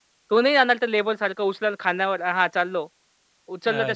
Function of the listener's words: listening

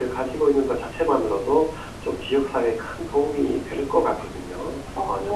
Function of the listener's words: taking over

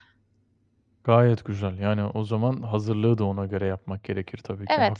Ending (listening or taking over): taking over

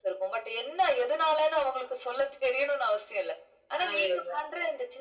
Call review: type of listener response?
listening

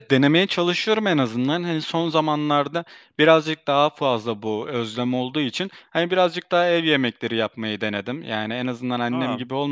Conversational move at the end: listening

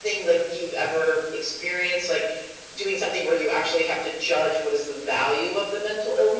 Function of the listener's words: taking over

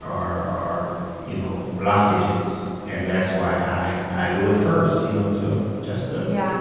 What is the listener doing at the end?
taking over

